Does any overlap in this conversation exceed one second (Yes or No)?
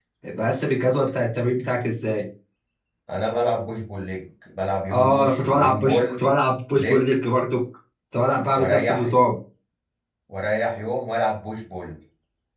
Yes